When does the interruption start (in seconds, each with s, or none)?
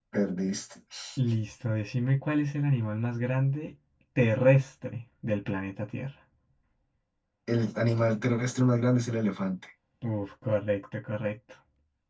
none